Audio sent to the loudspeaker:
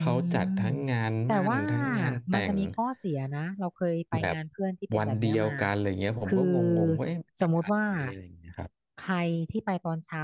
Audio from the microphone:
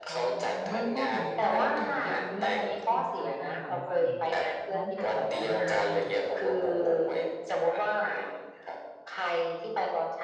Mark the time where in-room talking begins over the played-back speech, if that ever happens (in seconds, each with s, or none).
0.7 s